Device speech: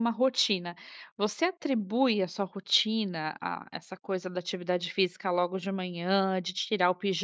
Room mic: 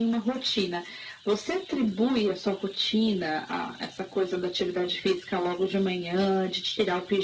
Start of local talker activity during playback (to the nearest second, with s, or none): none